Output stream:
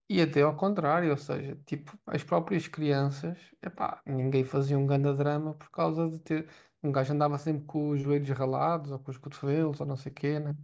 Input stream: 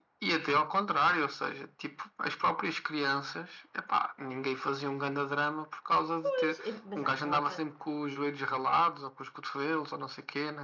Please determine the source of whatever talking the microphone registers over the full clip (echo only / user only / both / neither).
both